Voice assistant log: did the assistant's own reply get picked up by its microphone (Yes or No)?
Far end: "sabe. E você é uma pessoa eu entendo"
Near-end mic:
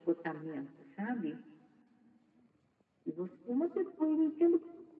Yes